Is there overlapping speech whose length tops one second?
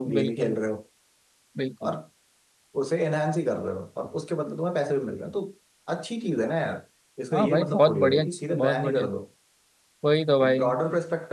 Yes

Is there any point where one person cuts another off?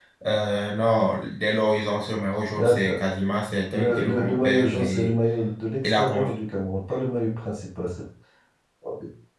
Yes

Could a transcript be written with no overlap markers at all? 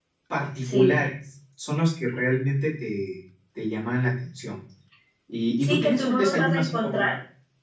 No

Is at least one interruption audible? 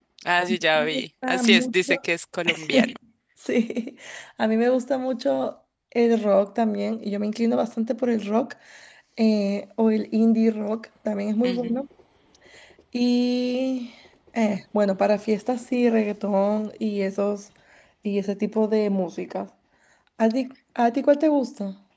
Yes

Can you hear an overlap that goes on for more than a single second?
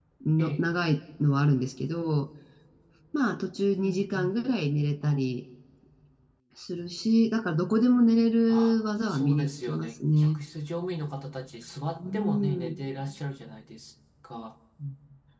Yes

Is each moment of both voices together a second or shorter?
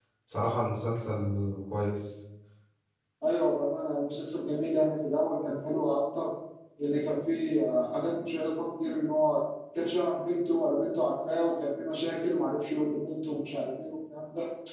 Yes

